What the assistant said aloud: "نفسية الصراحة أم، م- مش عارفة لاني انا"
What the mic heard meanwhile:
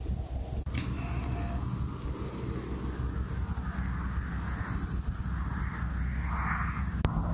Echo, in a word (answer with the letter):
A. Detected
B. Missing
B